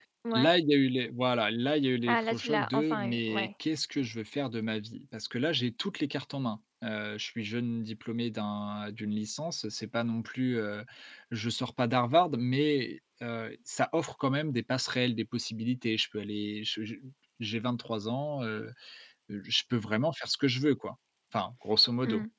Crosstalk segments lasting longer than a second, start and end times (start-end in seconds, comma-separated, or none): 2.1-3.5